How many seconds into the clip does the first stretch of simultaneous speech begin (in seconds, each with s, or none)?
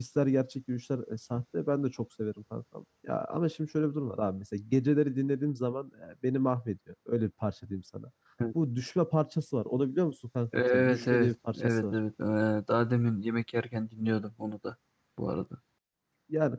10.5 s